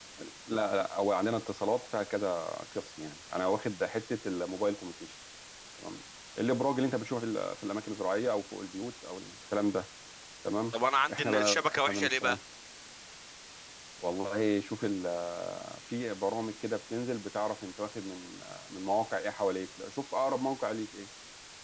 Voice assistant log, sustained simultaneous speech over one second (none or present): present